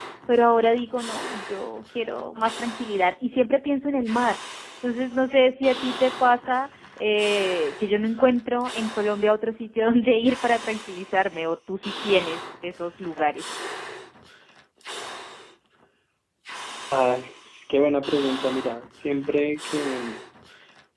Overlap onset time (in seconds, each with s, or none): none